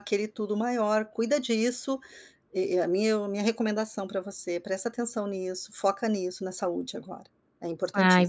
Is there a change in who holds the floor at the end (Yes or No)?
Yes